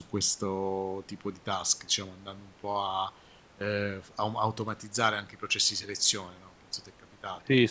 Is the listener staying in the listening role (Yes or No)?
No